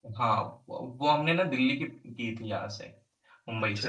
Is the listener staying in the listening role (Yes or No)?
Yes